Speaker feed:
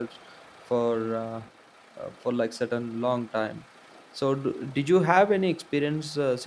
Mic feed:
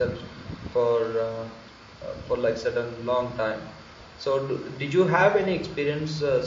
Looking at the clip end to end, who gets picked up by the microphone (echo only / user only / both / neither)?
echo only